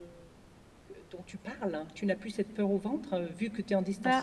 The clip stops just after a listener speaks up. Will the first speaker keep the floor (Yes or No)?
Yes